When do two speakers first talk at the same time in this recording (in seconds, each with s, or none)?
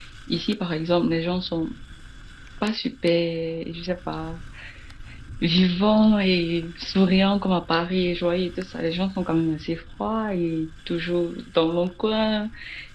none